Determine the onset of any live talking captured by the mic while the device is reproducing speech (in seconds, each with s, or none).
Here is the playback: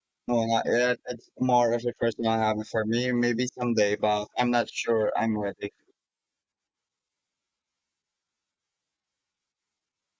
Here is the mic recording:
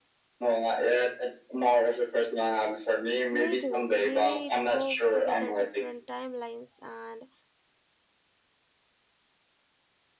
3.3 s